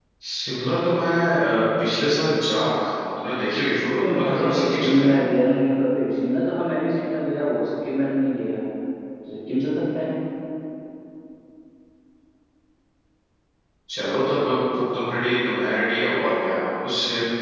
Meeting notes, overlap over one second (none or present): present